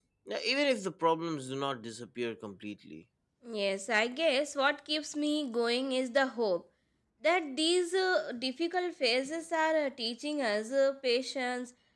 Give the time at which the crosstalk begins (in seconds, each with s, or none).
none